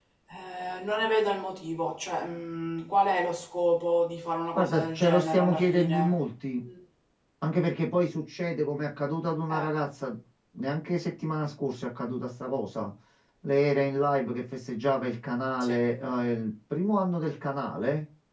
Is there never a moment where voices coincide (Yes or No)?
No